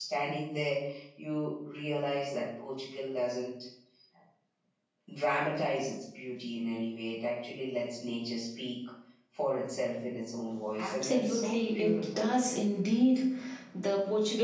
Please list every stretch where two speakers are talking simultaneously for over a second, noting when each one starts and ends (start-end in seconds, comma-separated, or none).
10.8-12.3